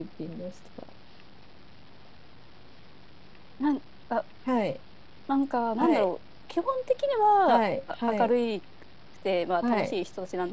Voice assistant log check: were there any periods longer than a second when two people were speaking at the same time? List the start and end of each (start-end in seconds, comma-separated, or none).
none